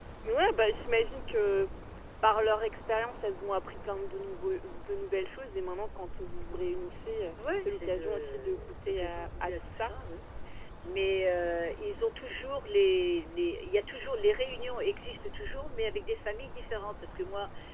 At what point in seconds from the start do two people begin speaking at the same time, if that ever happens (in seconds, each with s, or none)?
7.7 s